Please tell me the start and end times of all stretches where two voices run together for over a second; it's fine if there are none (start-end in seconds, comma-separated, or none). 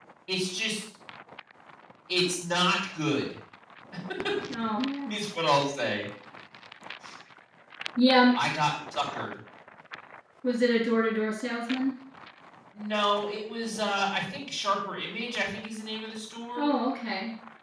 none